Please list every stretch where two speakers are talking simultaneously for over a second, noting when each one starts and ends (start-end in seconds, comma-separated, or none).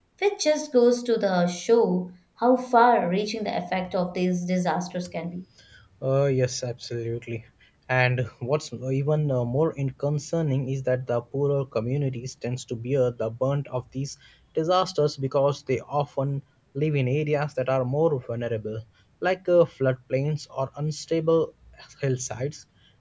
none